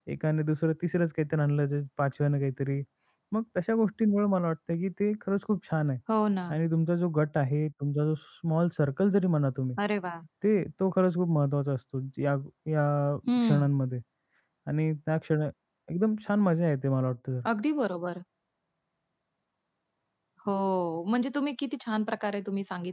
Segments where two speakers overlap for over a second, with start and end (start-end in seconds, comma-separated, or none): none